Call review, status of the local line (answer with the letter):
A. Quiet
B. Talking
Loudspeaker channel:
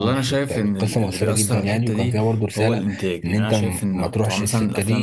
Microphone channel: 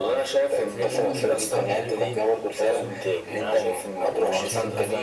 B